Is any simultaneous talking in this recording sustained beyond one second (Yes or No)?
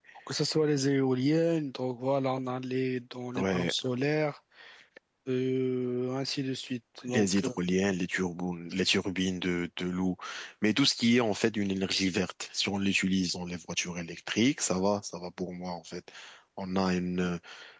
No